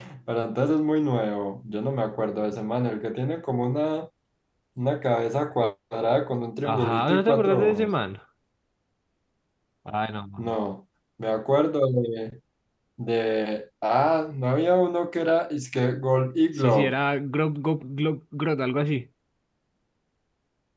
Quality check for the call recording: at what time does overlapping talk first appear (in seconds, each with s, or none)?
6.6 s